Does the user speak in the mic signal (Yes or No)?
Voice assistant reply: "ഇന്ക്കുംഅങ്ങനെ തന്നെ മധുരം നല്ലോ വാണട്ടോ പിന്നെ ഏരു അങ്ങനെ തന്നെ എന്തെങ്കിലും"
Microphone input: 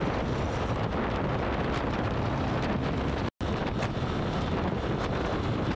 No